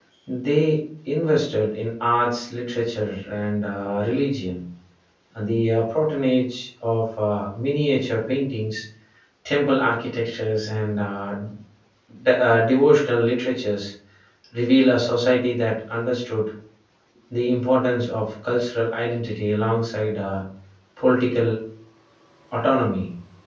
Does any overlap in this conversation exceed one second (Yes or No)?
No